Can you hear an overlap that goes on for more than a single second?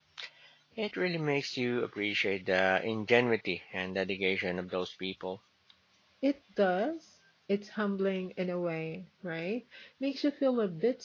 No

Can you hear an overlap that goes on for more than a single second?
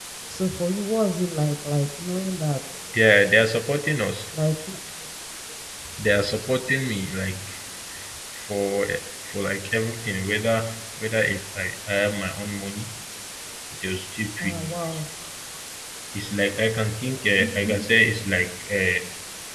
No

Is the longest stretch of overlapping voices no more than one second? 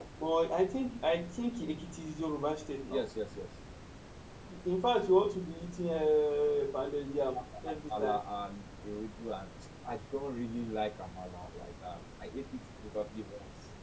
Yes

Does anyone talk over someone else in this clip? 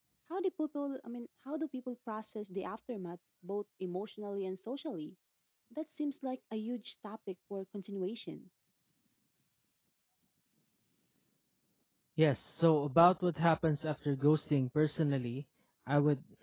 No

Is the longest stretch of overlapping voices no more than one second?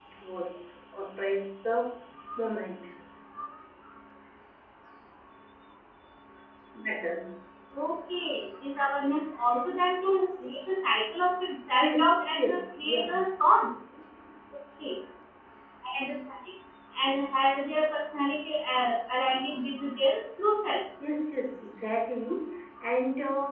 No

